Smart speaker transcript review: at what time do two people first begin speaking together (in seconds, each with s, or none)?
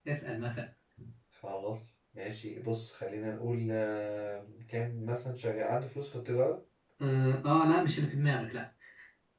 none